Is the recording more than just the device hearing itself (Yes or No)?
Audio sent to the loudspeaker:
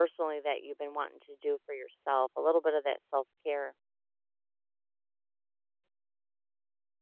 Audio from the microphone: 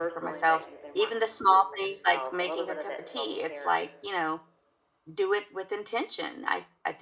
Yes